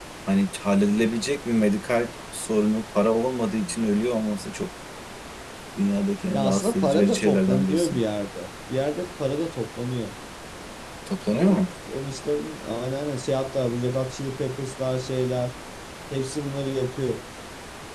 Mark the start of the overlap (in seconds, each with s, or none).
6.3 s